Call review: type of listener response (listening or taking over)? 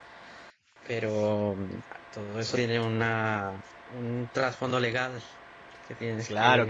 taking over